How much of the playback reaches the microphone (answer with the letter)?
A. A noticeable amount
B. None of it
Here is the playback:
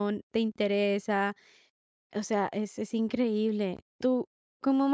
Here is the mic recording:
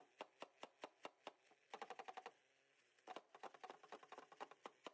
B